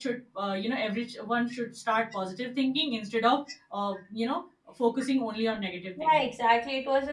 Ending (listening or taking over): taking over